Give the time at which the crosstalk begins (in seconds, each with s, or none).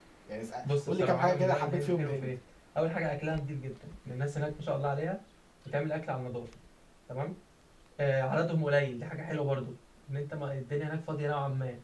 0.9 s